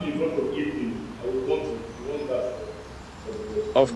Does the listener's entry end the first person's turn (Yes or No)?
Yes